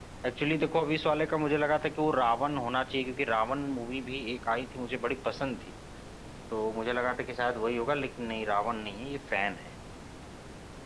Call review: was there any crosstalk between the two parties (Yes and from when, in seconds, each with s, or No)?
No